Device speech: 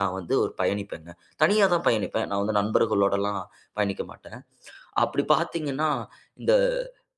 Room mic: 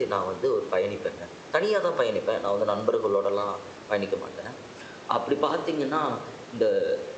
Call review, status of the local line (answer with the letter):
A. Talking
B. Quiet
B